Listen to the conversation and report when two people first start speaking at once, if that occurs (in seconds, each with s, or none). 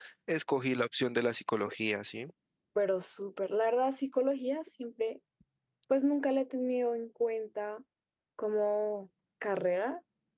none